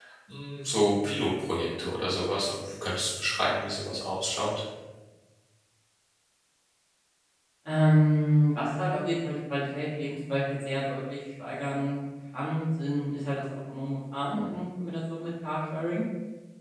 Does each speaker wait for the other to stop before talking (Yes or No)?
Yes